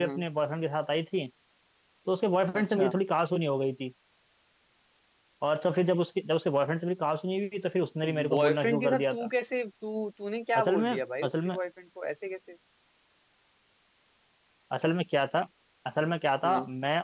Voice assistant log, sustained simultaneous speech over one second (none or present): present